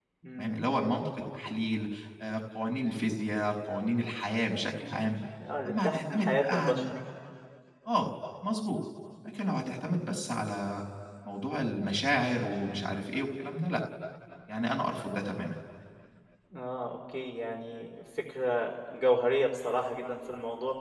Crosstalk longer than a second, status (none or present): present